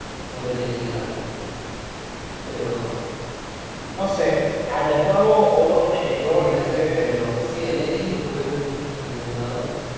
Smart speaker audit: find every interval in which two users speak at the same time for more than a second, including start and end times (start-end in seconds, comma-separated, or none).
6.0-7.3